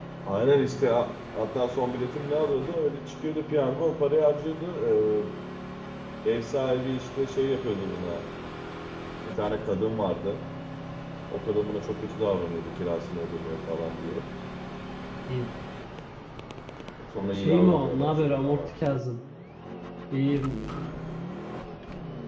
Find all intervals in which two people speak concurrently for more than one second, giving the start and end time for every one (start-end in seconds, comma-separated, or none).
17.4-19.0